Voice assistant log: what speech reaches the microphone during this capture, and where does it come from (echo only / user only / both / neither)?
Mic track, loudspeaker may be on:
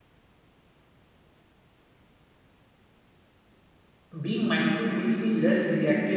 user only